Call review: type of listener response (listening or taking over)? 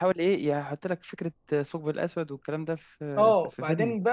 taking over